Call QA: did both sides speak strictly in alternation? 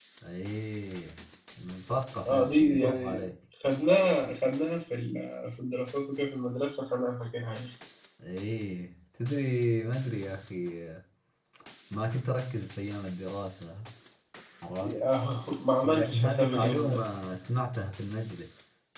No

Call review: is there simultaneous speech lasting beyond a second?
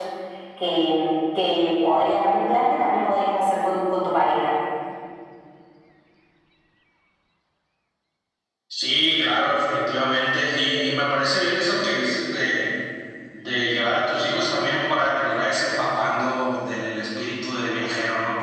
No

